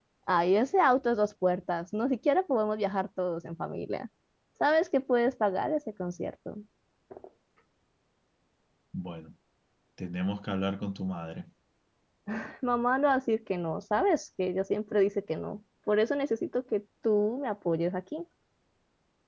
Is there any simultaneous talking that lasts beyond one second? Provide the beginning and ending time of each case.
none

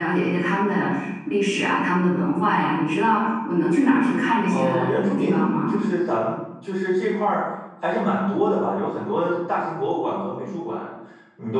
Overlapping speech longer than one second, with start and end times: 4.5-5.8

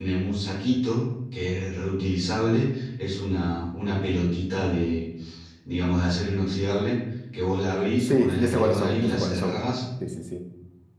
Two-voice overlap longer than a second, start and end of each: 8.0-9.6

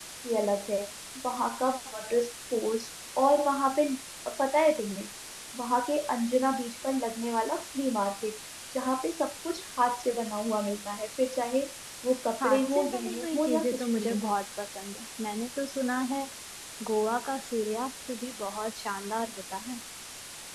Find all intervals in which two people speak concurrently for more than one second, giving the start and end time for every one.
12.4-14.2

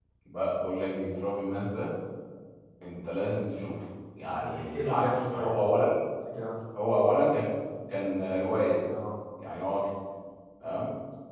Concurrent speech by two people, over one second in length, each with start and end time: 4.2-5.7

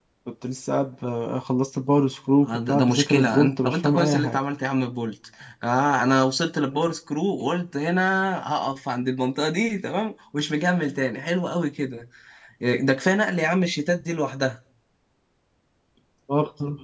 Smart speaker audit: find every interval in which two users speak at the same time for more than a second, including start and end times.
2.5-4.4

